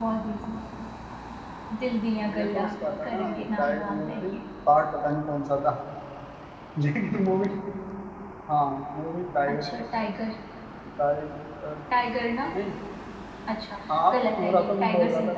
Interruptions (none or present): present